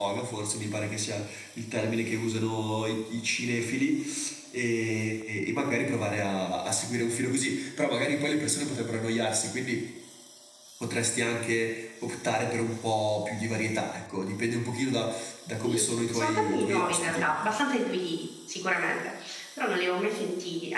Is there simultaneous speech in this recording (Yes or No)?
Yes